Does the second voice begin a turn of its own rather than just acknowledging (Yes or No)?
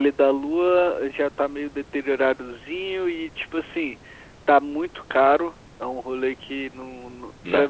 No